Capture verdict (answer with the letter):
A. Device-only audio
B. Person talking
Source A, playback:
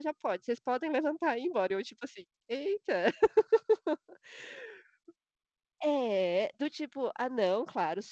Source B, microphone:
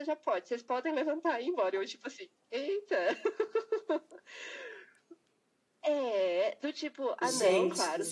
B